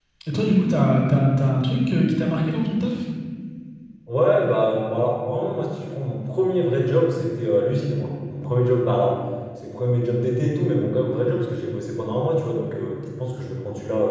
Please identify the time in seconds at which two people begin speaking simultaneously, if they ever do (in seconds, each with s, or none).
none